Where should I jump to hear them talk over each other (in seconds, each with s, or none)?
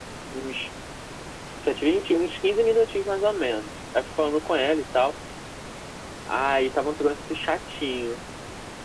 none